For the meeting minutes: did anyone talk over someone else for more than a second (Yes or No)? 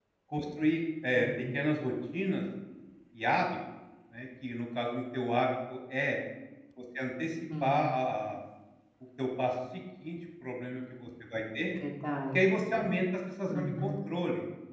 No